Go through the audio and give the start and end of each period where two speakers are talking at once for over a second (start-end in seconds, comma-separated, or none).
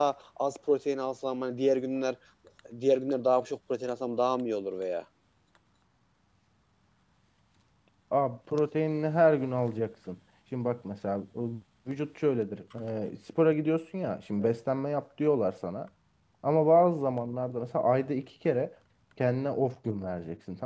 none